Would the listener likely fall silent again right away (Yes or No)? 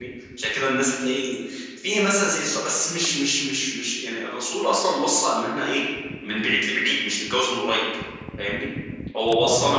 Yes